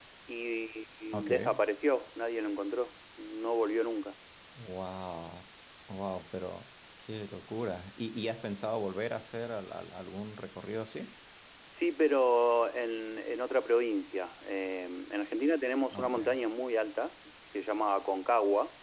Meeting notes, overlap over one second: none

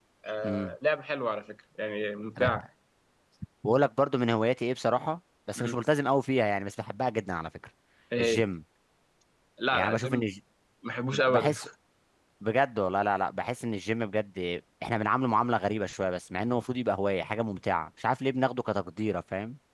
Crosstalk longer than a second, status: none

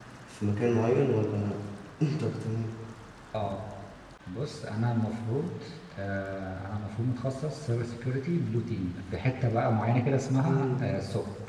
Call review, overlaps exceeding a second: none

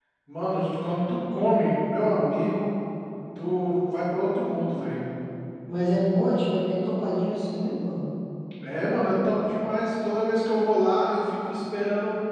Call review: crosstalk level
none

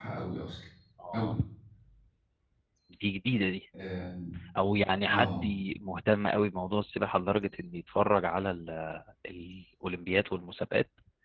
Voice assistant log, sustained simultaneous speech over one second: none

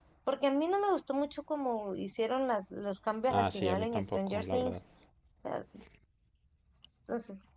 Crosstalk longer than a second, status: present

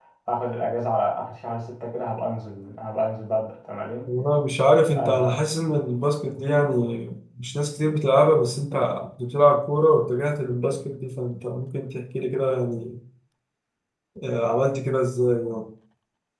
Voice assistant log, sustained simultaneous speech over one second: none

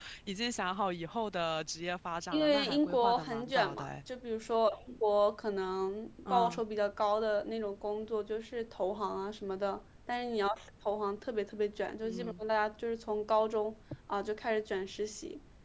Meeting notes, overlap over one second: present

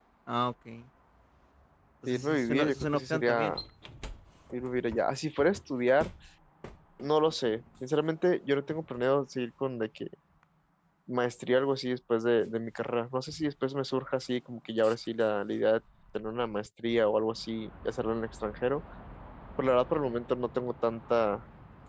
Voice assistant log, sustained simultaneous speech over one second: present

